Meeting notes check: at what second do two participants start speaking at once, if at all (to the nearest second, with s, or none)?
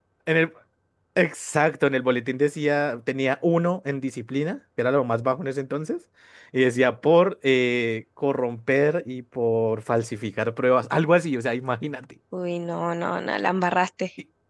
none